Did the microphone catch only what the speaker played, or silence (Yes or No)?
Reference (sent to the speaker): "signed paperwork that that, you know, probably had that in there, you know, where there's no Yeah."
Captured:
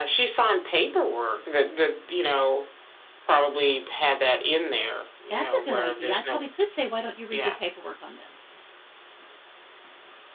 No